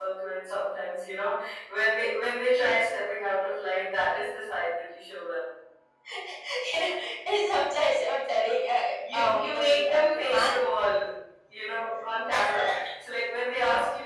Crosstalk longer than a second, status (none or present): present